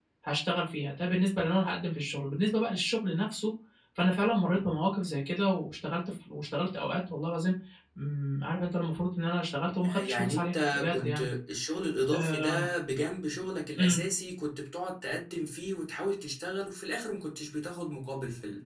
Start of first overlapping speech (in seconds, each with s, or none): 9.8 s